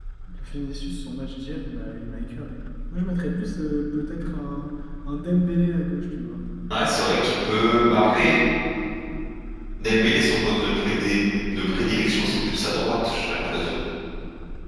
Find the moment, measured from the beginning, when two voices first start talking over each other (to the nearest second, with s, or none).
none